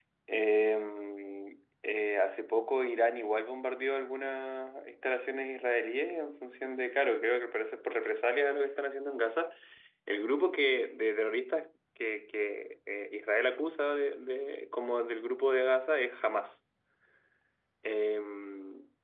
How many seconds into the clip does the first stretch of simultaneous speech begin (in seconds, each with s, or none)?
none